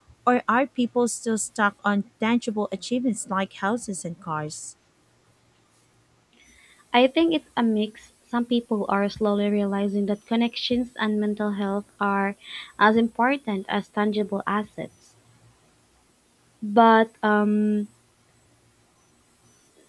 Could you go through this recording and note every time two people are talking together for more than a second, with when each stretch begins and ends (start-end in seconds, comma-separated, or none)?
none